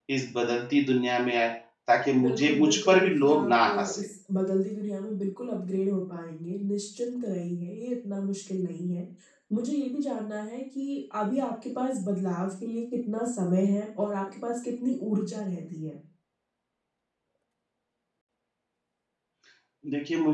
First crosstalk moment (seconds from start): 2.2 s

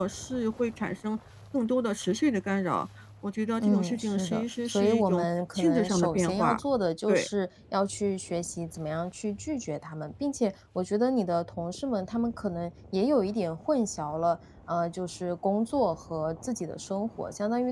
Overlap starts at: 3.6 s

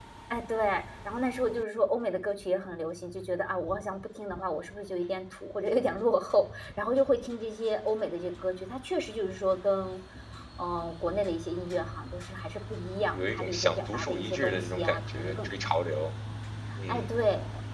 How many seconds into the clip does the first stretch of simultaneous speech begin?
13.1 s

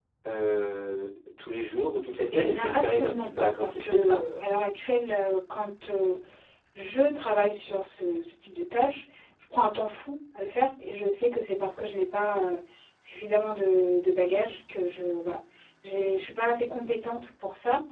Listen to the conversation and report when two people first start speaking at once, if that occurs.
2.3 s

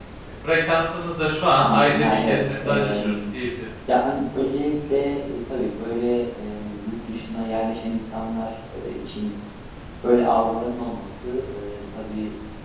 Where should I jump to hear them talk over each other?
1.5 s

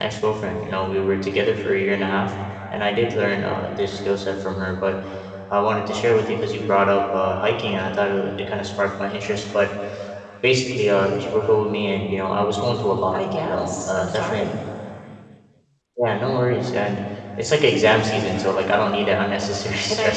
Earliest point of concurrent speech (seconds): 13.1 s

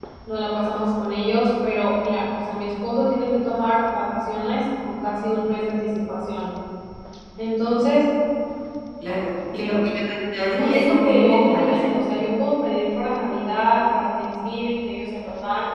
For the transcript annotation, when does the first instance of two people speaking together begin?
10.5 s

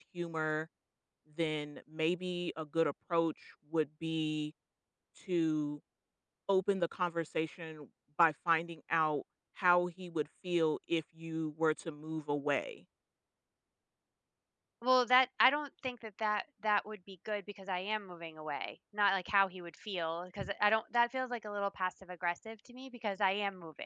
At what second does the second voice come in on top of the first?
none

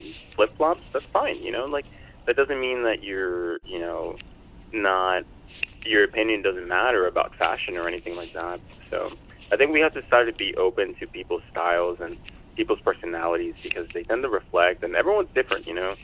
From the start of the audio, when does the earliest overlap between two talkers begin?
none

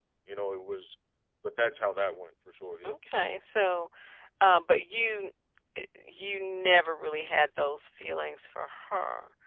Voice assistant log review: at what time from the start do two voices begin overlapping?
none

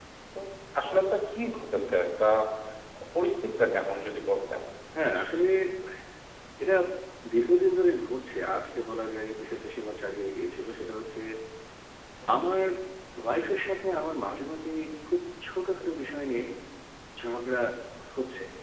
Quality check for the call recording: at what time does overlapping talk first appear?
none

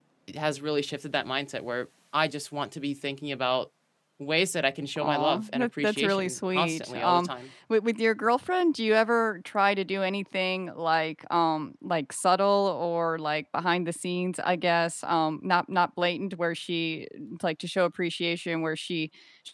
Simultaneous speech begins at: 5.0 s

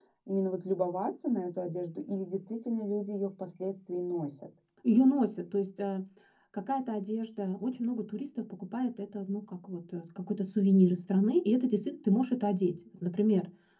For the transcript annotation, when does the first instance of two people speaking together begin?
none

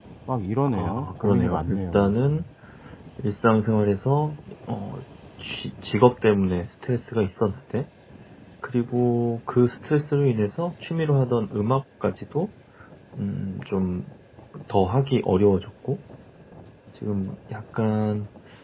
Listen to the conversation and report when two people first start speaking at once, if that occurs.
0.7 s

